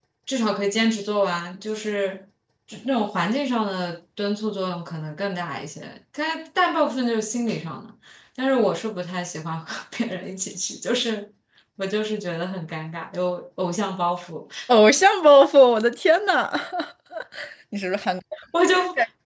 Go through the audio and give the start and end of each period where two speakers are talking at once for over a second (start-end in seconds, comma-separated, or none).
none